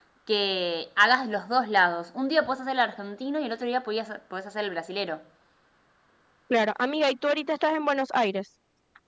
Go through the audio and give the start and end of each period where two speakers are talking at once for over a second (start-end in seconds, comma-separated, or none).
none